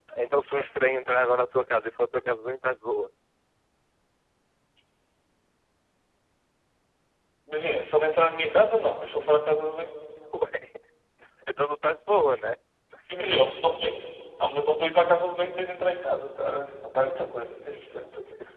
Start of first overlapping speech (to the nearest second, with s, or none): none